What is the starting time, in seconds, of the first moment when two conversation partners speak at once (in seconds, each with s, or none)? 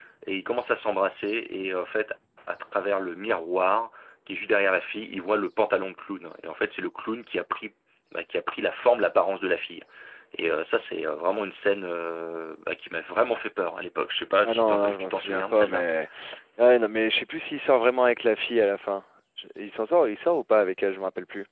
14.4 s